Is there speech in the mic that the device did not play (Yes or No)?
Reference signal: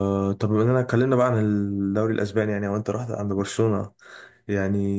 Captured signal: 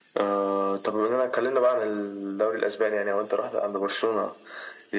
No